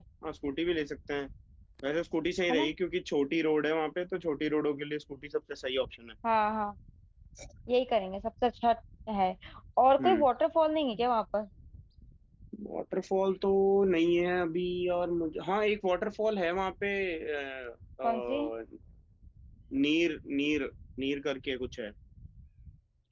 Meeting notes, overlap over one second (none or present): none